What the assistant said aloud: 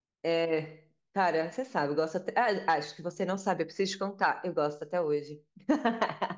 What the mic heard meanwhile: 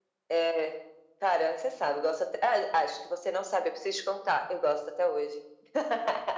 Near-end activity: none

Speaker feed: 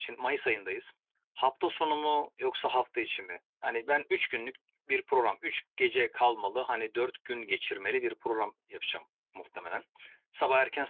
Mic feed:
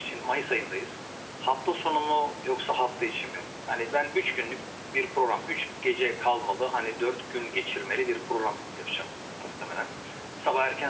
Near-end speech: none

